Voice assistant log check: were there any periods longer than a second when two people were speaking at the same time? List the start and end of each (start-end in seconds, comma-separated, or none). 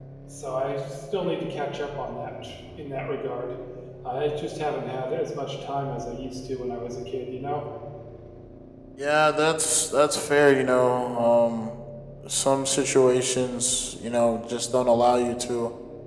none